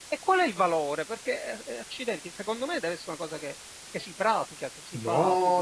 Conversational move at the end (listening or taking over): taking over